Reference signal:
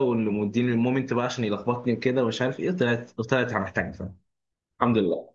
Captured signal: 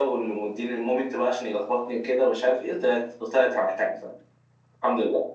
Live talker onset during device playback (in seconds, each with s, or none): none